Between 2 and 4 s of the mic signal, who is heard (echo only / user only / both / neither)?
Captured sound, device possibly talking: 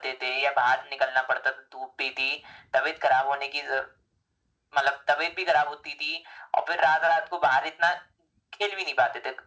echo only